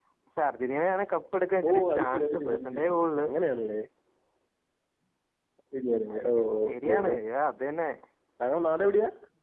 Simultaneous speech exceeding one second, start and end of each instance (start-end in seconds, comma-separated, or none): 1.7-2.9